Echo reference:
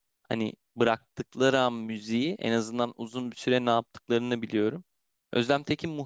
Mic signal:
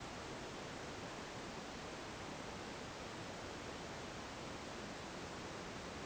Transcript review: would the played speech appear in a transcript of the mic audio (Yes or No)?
No